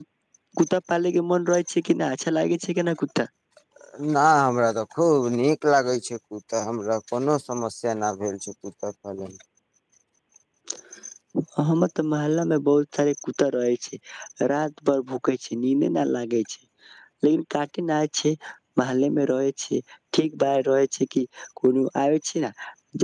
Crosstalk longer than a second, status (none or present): none